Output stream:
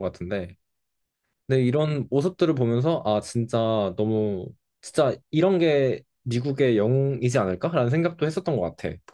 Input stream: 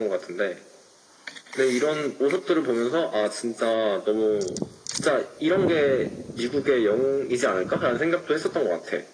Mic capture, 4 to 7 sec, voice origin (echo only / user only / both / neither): echo only